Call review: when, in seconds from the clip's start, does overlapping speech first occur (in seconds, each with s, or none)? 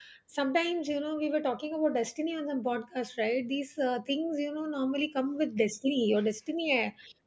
none